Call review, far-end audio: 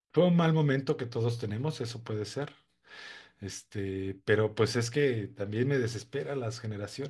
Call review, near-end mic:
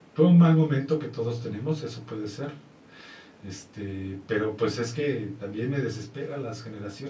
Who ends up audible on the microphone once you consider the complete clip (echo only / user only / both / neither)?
echo only